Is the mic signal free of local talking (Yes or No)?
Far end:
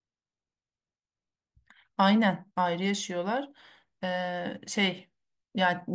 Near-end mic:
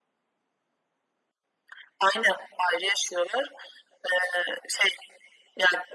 Yes